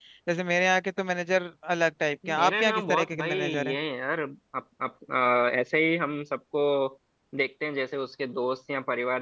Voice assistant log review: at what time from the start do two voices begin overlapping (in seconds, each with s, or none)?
2.2 s